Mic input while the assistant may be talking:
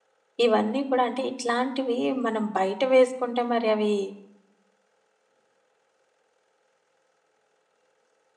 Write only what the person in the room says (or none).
ఇవన్నీ కూడా అంటే ఇట్లాంటివి మనం బయట వేసుకుంటే మరి అవి